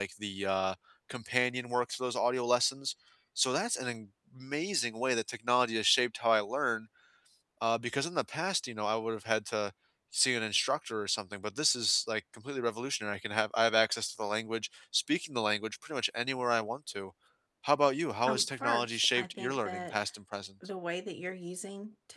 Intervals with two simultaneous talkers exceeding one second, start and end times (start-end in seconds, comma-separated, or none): 18.2-20.0